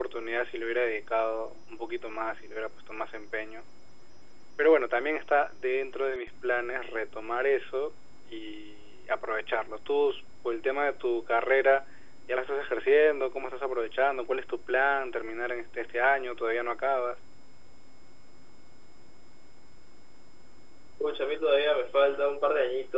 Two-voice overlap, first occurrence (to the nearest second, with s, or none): none